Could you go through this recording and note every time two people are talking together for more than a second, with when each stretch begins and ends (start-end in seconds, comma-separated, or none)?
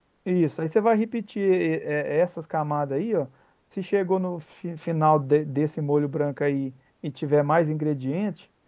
none